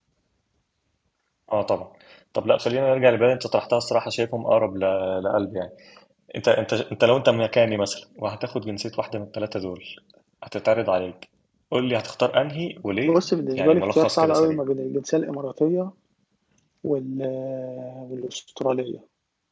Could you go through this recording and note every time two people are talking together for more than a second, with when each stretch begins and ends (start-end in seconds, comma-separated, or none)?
13.0-14.6